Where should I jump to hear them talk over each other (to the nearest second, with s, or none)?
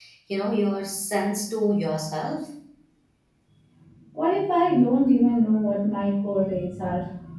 none